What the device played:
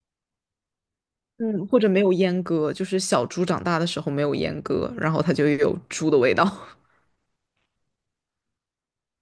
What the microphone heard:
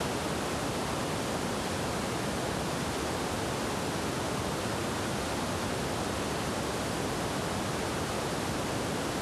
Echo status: none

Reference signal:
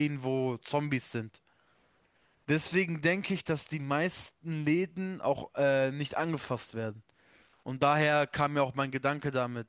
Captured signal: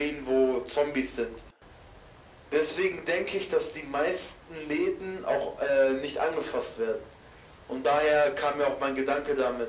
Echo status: present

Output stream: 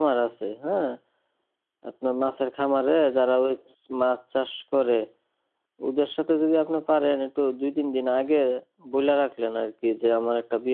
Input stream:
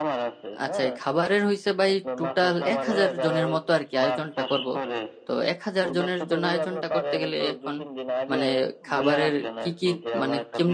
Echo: present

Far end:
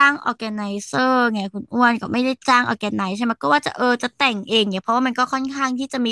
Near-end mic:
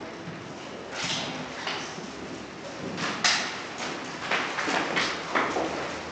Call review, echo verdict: none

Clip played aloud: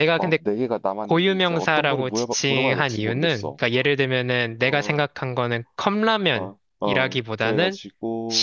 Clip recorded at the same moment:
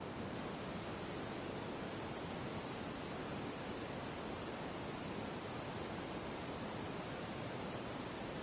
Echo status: none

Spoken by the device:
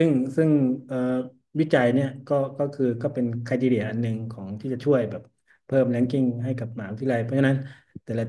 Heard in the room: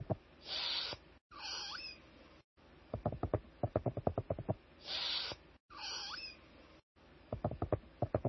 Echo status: none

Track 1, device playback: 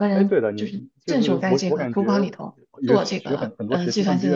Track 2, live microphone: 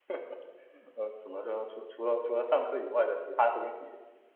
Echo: none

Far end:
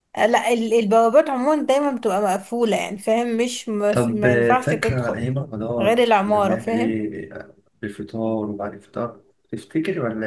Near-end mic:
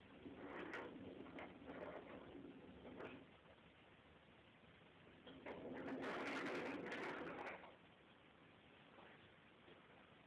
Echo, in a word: none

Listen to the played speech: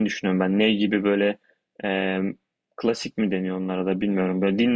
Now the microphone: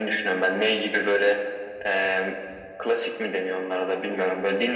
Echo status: present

